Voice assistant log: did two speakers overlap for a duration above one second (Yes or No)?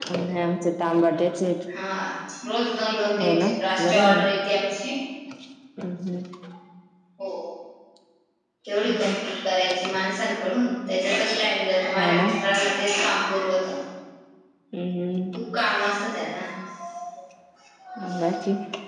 No